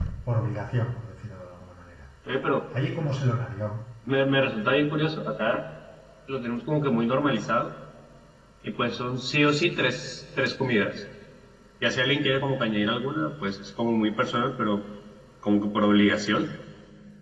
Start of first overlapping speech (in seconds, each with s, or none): none